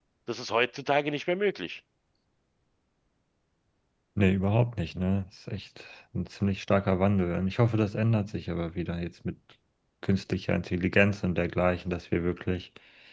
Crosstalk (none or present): none